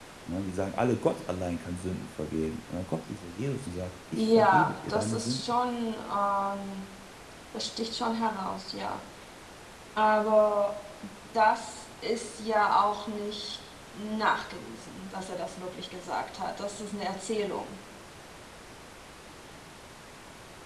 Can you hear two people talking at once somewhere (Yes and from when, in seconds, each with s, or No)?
Yes, from 4.2 s